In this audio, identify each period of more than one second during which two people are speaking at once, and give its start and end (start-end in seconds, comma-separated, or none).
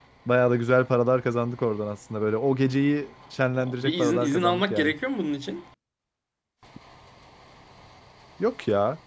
3.6-4.9